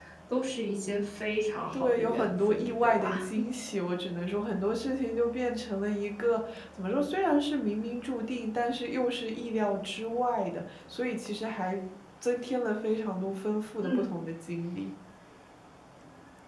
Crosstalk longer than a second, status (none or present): present